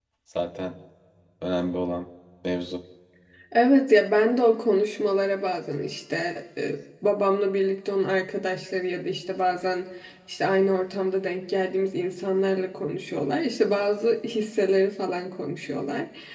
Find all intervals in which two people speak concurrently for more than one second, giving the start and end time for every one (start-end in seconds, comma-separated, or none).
none